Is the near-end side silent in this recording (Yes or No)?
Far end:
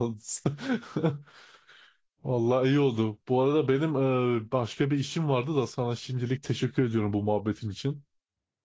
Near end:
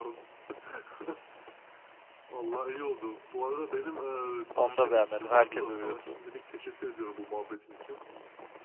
No